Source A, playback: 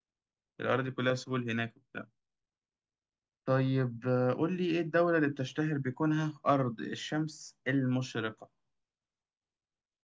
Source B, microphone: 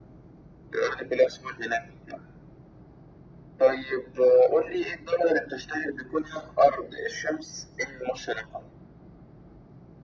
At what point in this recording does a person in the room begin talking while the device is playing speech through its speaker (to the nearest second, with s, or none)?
none